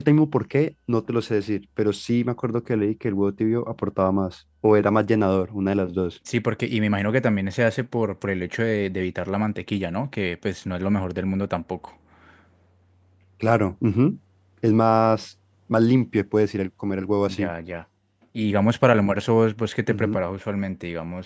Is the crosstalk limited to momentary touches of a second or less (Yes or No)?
Yes